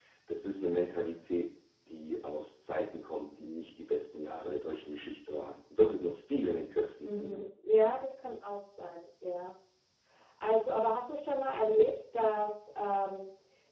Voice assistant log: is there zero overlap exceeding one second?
Yes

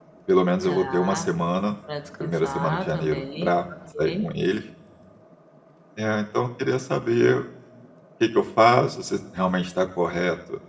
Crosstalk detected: Yes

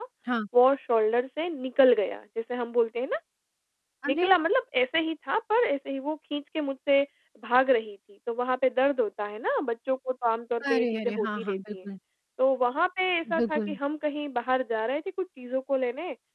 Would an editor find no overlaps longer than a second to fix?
No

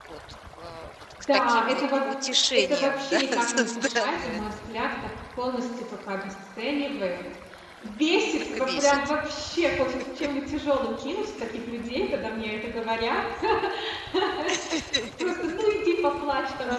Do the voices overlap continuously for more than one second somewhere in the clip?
Yes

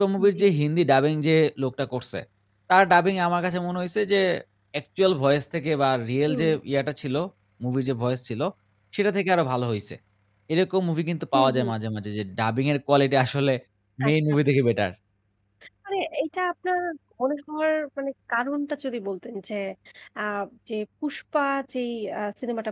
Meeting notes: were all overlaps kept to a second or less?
Yes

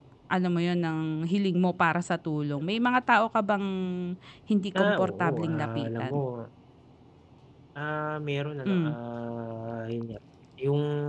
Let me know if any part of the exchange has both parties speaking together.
Yes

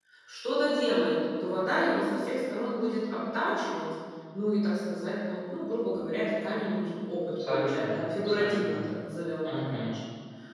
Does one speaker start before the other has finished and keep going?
Yes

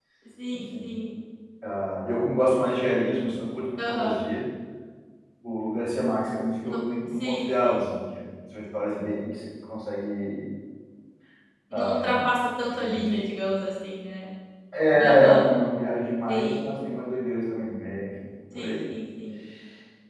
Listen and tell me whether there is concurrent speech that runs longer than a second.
Yes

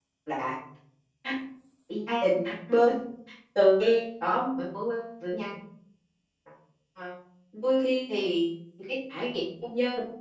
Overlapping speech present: No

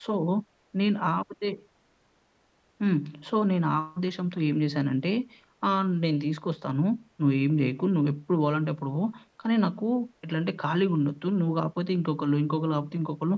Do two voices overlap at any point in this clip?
No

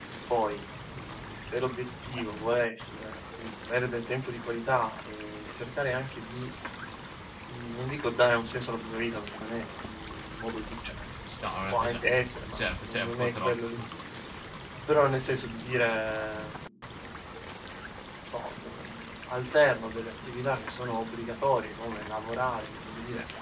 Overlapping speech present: Yes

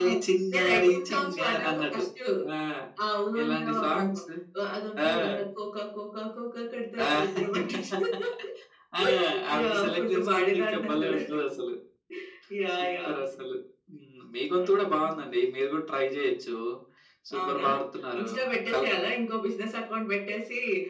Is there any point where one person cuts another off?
Yes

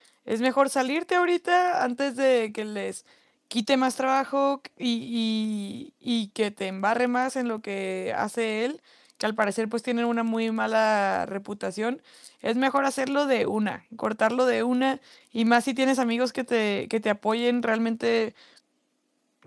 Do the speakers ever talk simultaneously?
No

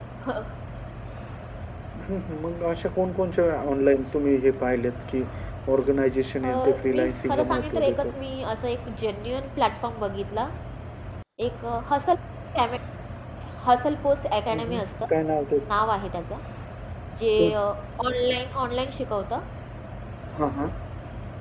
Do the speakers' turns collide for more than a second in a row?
Yes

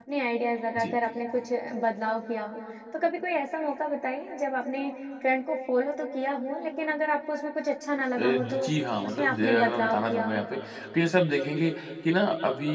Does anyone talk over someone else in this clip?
Yes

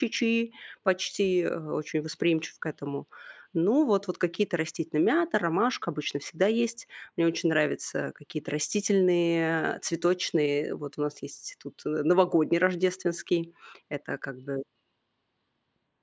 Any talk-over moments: No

